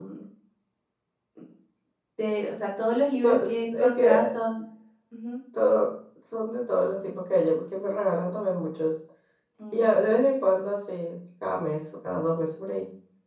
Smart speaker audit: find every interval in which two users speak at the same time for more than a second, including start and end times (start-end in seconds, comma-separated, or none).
3.1-4.4